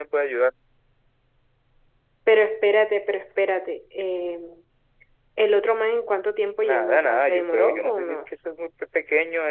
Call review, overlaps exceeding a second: present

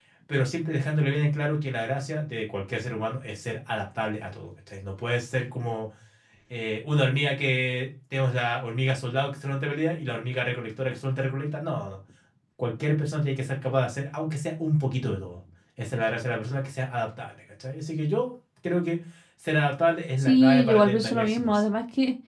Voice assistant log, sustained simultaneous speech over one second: present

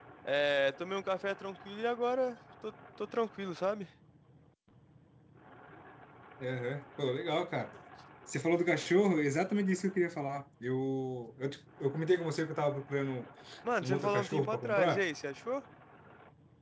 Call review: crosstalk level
present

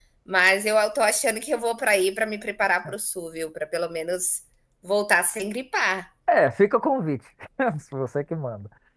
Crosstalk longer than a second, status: none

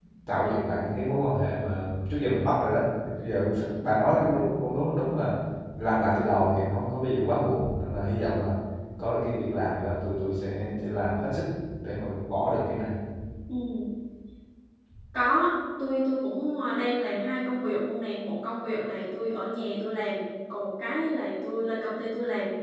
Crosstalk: none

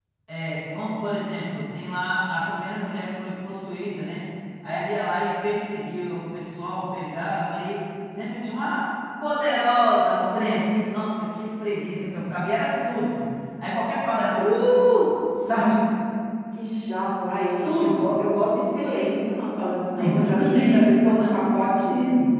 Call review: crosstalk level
present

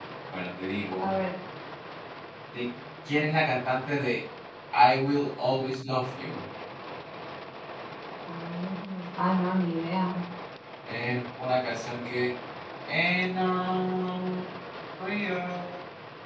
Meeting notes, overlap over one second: none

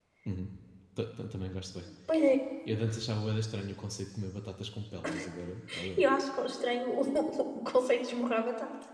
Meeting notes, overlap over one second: none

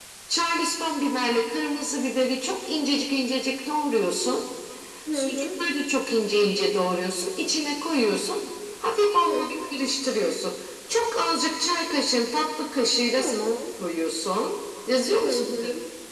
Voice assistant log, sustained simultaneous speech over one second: none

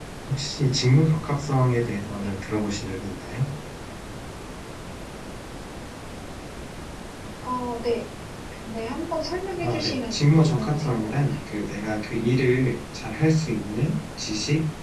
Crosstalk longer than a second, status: present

